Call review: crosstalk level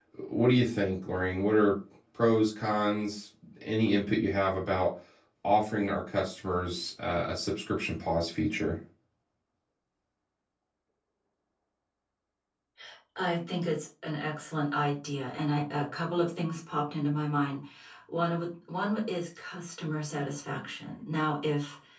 none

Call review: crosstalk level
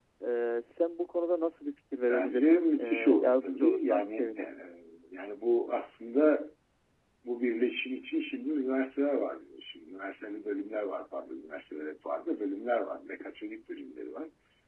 present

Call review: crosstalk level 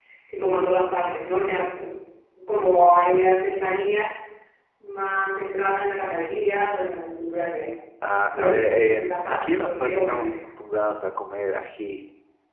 present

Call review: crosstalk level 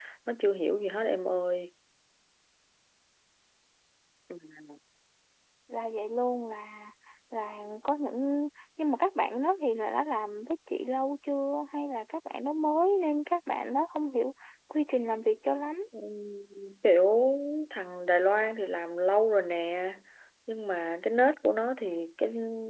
none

